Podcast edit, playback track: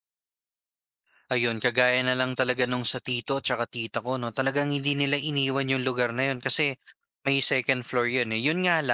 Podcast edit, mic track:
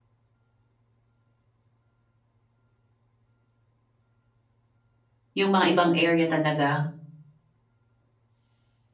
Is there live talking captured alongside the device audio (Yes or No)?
Yes